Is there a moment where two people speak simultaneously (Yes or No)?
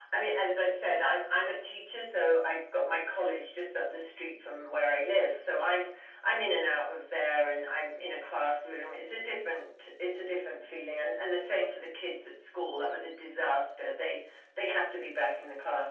No